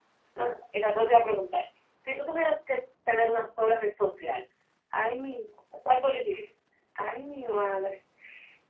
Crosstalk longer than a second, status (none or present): none